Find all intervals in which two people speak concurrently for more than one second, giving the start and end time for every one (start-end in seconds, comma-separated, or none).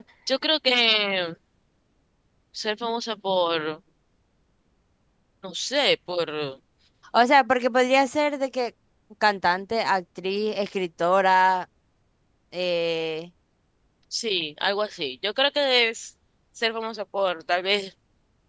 none